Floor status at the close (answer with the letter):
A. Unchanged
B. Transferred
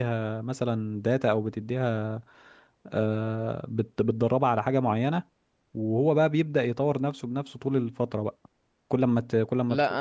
B